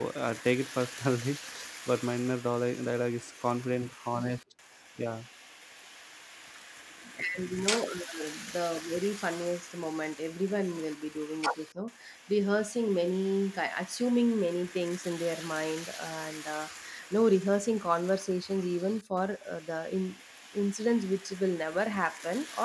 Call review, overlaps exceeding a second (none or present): none